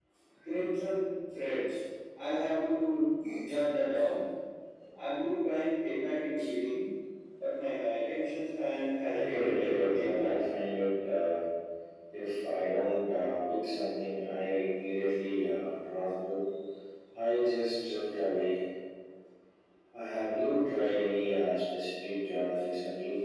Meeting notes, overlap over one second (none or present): present